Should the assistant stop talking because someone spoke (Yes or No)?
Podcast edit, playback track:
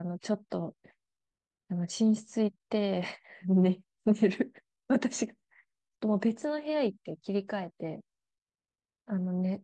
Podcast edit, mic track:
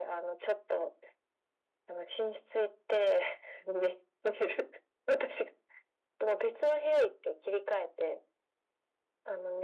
No